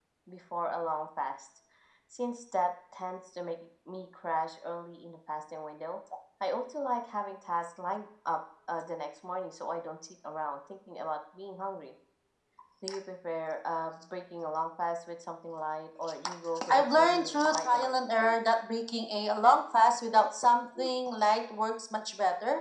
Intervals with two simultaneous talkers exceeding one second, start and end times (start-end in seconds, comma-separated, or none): 16.7-18.0